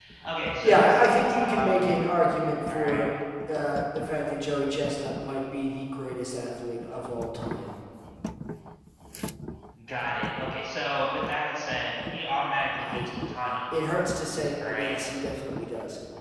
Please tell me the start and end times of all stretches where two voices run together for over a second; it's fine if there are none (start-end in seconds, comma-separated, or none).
0.6-1.9